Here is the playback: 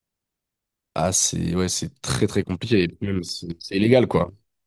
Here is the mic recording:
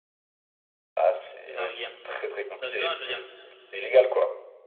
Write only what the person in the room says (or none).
le Norguien dans la saison 1, je veux dire